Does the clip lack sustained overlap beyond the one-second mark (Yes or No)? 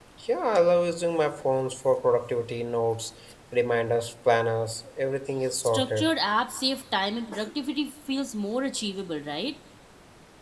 Yes